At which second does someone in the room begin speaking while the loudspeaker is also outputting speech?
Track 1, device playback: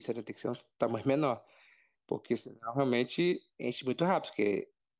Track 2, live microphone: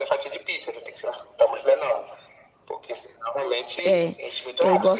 3.8 s

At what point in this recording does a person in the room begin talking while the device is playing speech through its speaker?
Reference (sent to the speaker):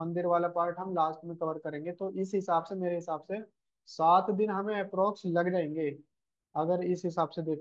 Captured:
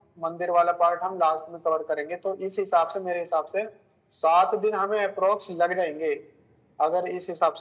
none

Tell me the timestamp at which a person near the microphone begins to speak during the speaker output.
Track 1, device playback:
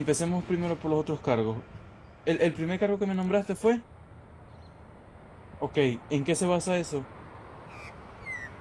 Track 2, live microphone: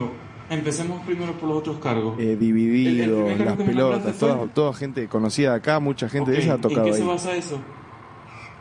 2.2 s

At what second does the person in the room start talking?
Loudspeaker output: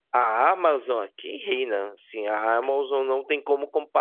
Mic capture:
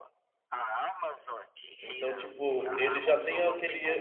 1.8 s

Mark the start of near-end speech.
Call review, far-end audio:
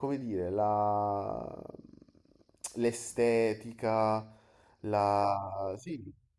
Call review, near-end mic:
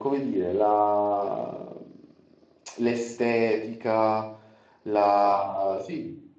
none

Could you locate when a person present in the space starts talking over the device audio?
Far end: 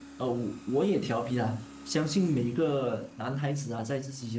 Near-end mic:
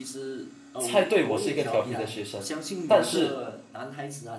0.8 s

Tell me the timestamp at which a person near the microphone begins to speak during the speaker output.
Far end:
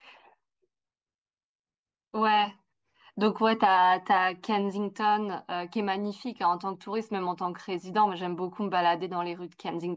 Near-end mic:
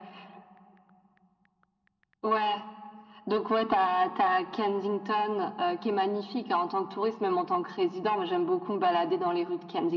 none

